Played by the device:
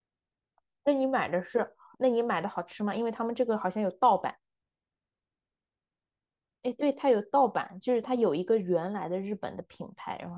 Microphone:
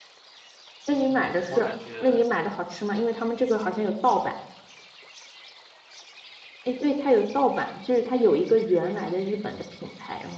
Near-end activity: present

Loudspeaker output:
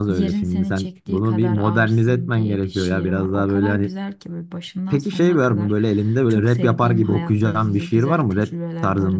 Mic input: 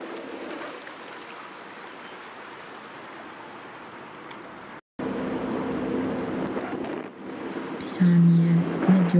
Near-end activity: present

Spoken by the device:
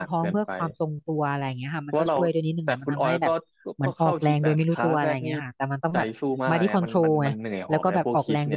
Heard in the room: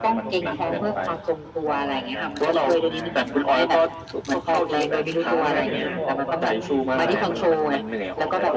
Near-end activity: present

